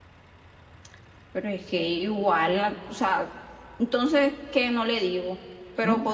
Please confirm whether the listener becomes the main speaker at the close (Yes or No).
No